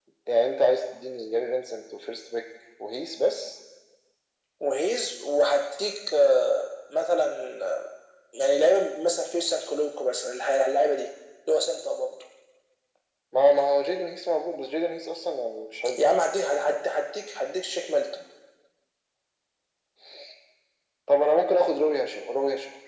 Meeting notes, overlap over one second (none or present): none